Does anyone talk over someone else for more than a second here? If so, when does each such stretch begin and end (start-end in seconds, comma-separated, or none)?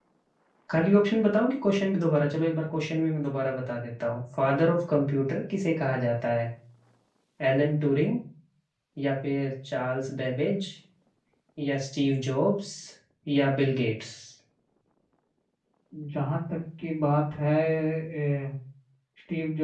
none